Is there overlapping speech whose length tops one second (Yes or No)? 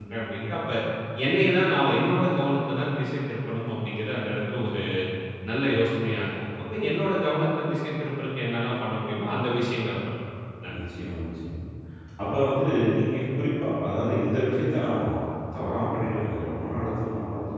No